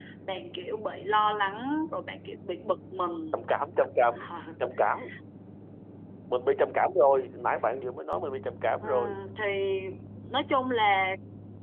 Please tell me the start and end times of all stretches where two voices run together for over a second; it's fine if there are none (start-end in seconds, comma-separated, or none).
none